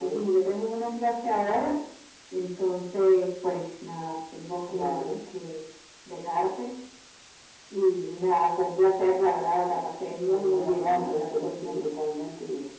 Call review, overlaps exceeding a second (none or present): present